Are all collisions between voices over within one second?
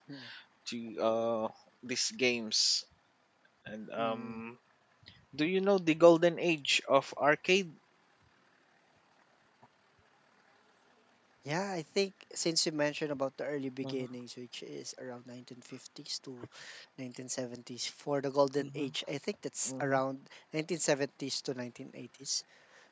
Yes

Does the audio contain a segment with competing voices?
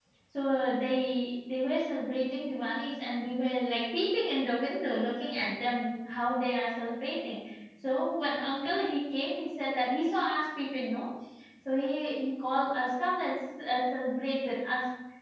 No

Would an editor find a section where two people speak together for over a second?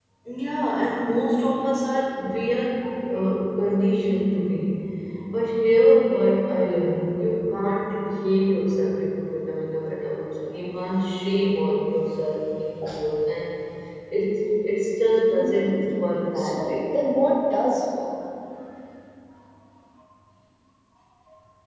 No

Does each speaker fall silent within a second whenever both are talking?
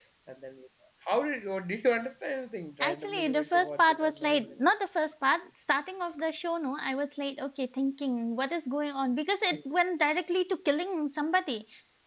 No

